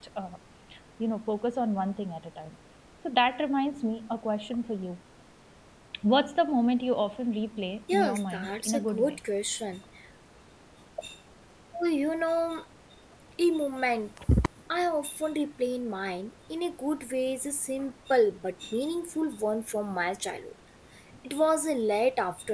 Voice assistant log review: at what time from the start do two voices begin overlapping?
7.9 s

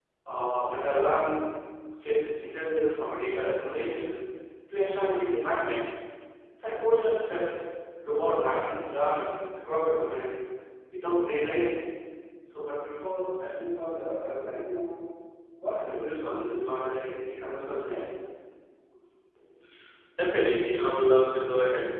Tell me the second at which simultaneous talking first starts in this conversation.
none

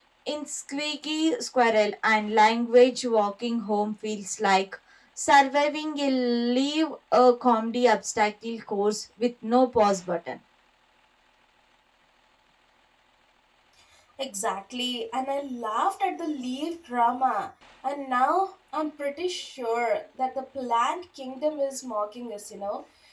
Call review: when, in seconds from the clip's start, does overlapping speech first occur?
none

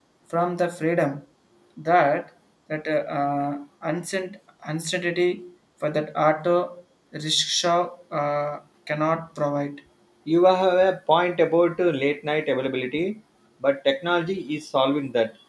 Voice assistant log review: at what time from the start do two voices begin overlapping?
none

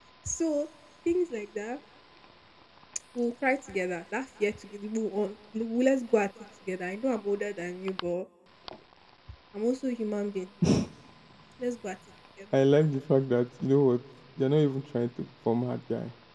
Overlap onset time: none

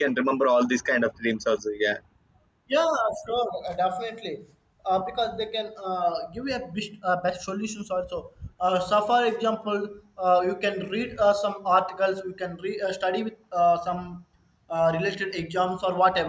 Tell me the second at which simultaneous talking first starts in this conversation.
none

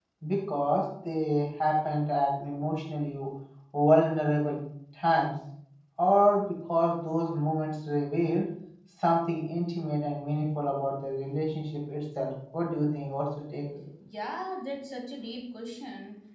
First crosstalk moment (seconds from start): none

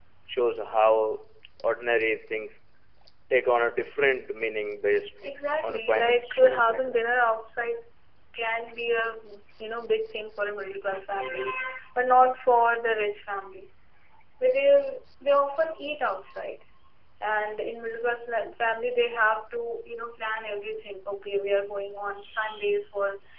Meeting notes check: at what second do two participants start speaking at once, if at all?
5.6 s

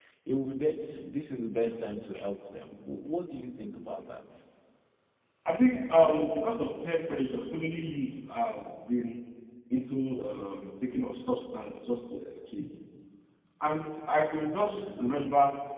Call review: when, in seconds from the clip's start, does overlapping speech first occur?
none

